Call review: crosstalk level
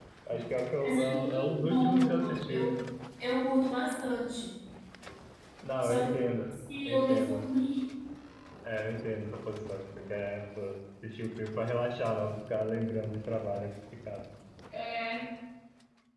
present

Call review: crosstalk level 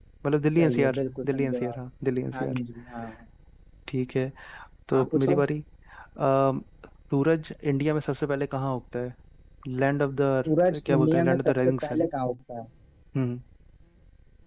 present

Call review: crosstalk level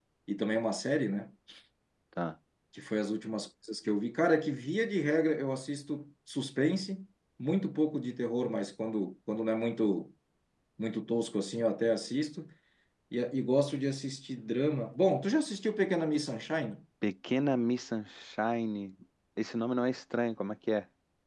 none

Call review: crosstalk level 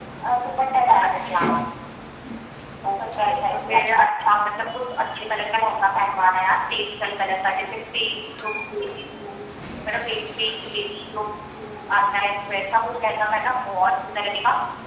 present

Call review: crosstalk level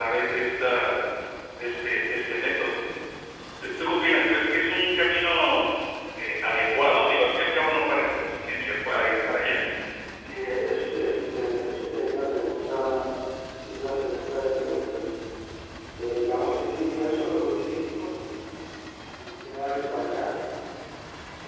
none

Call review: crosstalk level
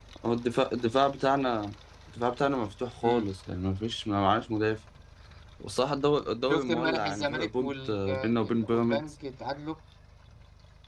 present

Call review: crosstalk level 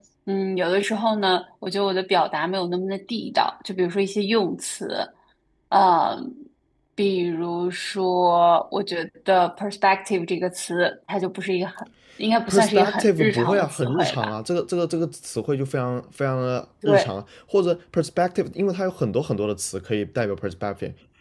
present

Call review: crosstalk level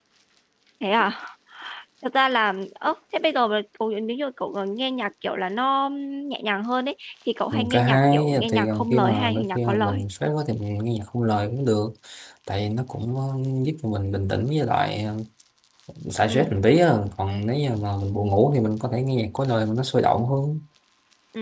present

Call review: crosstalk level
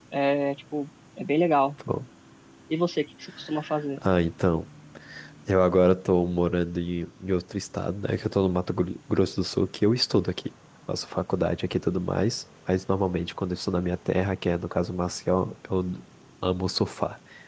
none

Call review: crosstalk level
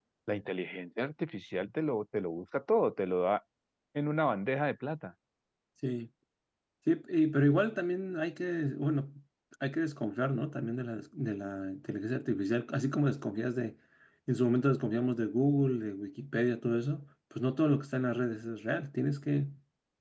none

